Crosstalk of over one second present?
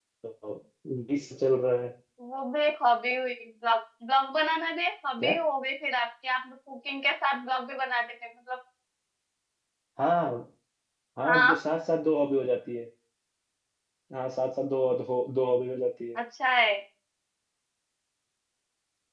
No

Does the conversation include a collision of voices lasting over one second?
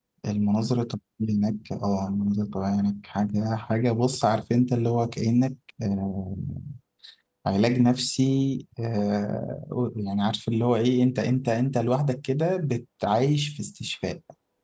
No

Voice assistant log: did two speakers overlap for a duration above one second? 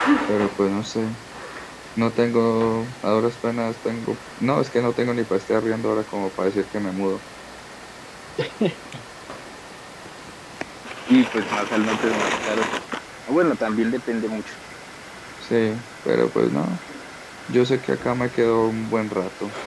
No

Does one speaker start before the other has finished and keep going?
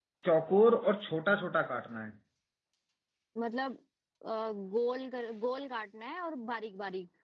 No

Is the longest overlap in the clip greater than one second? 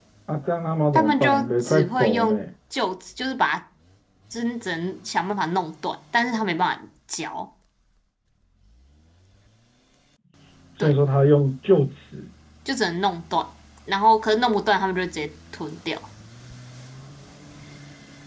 Yes, from 1.0 s

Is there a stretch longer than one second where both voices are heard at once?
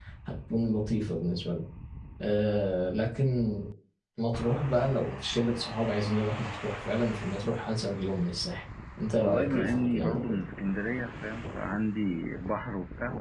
Yes, from 9.2 s

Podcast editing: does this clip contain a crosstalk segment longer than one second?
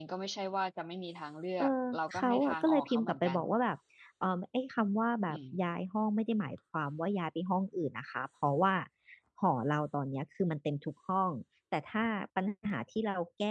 Yes, from 1.6 s

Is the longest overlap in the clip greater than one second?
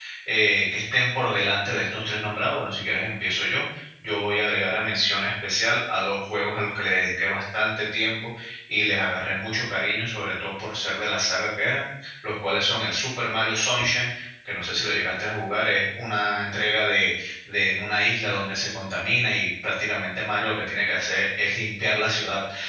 No

